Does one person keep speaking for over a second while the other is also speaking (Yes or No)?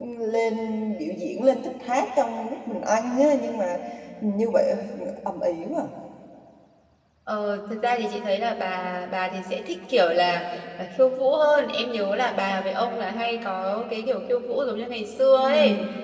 No